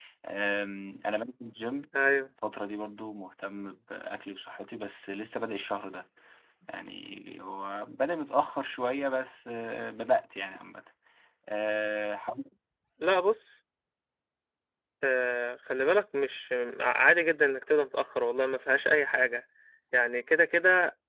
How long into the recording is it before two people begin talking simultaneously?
none

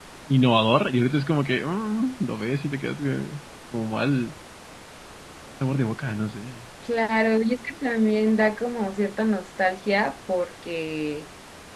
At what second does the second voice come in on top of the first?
none

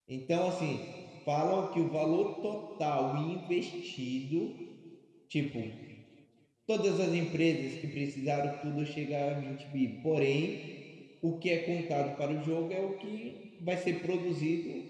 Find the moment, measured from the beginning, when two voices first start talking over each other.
none

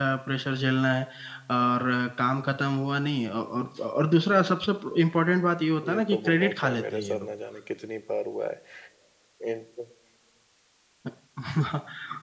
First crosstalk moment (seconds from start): 6 s

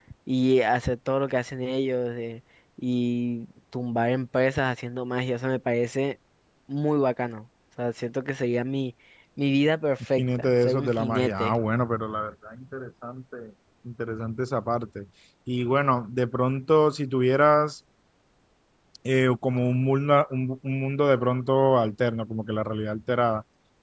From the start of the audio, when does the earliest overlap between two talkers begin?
10 s

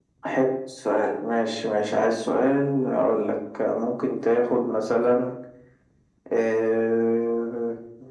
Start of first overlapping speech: none

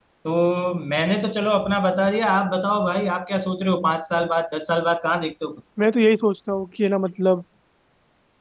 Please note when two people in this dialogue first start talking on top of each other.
none

